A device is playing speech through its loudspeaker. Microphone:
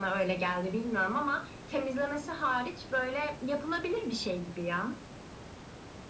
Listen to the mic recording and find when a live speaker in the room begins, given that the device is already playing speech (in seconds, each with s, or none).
none